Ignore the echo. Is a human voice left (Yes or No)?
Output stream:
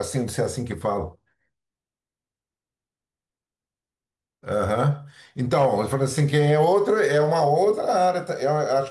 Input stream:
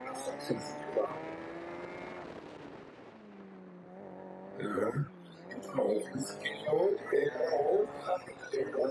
No